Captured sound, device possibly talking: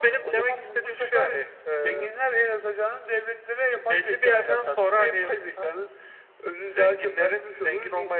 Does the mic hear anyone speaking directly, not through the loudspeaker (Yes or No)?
No